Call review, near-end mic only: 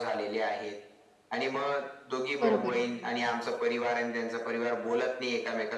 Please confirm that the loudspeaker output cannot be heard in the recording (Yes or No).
No